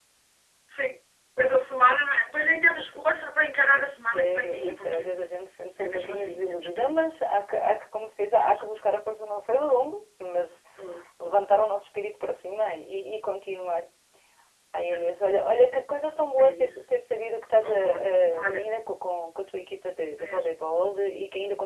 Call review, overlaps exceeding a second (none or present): present